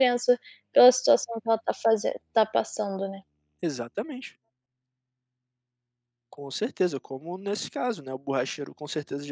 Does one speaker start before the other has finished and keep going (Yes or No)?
No